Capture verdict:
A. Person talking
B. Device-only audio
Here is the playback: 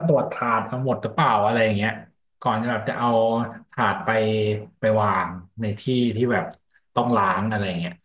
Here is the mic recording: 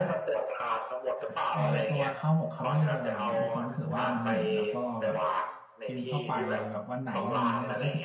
A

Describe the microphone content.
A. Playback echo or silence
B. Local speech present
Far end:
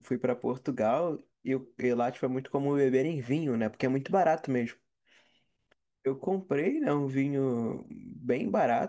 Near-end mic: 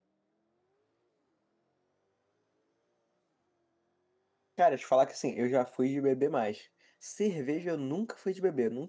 B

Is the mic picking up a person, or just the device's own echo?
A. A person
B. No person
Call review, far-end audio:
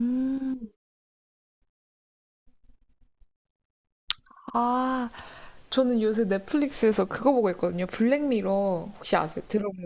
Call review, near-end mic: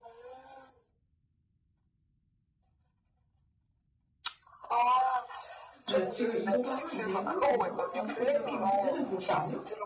A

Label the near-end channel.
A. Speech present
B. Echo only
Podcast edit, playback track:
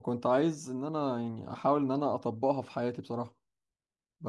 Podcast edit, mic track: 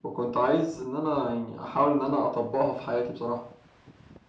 B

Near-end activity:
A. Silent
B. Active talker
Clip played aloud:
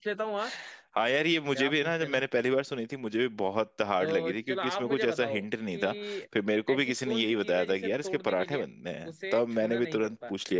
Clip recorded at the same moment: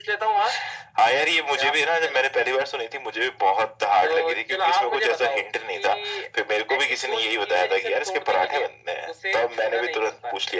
A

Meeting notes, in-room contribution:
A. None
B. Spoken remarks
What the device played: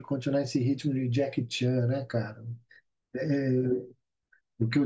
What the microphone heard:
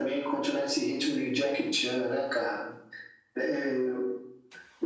A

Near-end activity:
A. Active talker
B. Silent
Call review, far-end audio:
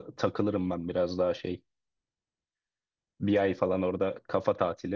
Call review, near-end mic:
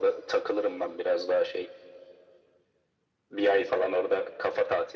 B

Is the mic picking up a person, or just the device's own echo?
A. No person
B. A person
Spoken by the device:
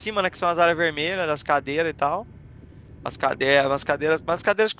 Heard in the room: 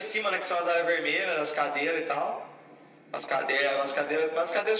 A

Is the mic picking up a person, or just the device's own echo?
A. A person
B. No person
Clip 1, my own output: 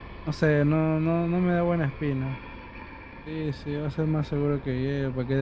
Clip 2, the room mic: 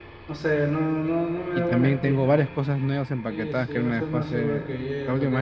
A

